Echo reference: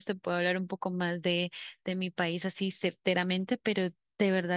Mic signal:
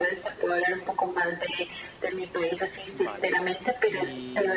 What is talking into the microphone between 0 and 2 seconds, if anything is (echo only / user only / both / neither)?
echo only